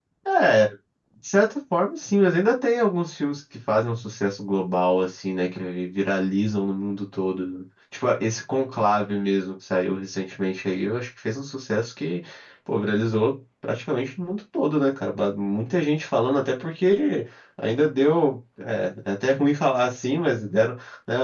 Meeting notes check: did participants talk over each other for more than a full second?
No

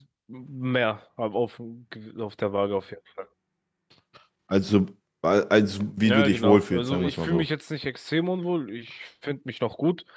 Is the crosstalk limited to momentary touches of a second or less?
No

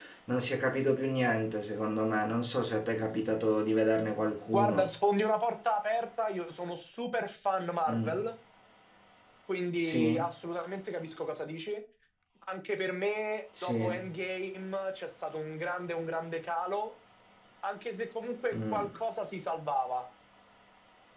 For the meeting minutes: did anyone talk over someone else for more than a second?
No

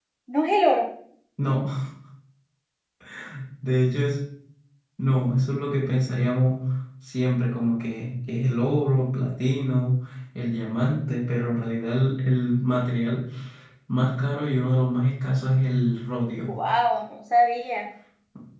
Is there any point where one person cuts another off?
No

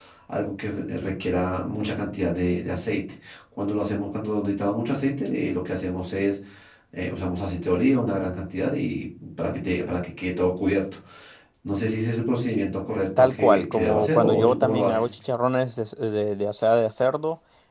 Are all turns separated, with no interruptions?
No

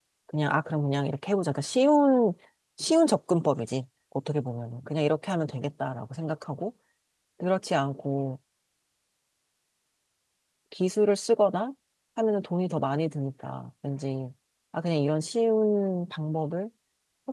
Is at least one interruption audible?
No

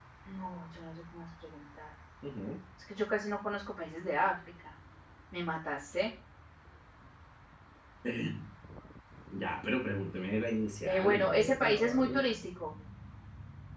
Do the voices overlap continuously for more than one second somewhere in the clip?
Yes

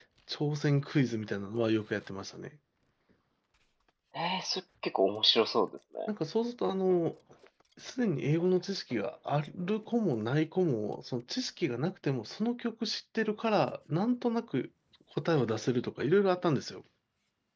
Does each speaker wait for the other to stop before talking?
Yes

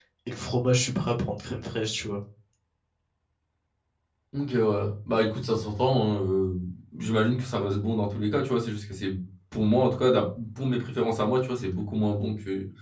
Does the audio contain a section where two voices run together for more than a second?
No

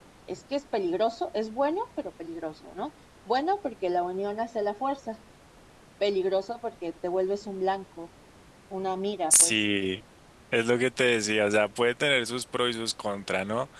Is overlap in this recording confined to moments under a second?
Yes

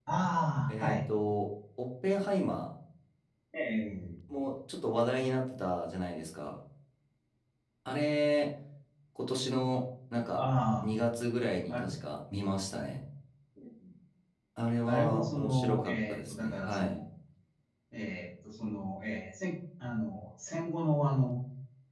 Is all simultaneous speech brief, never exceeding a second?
No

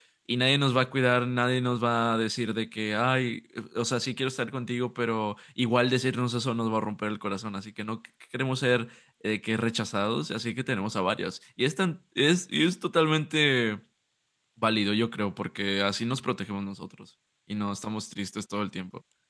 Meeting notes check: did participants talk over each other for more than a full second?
No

